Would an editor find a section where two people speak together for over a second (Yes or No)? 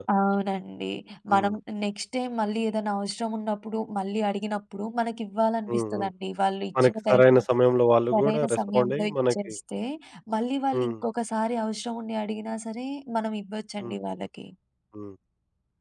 Yes